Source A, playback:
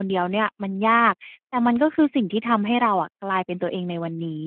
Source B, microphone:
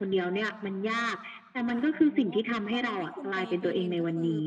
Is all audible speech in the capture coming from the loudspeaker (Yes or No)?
No